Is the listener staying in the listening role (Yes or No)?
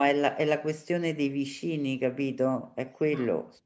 No